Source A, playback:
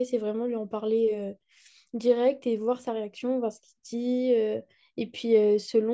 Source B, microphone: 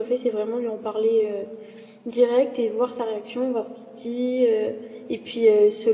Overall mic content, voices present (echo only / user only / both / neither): echo only